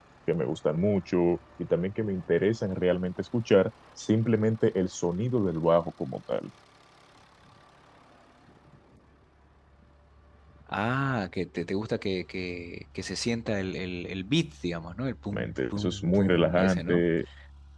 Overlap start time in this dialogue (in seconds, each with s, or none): 15.3 s